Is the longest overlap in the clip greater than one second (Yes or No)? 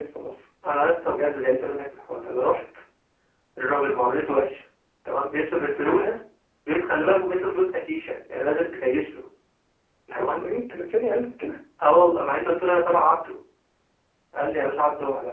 No